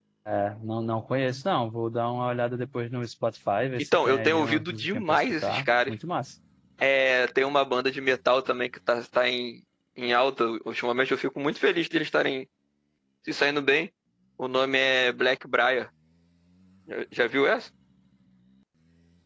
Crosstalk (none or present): present